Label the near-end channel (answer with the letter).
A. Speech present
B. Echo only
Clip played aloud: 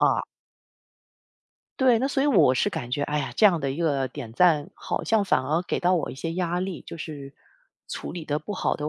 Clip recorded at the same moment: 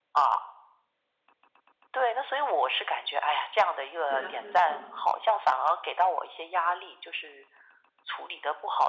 A